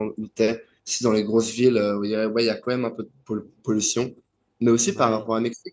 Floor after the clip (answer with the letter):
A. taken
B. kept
B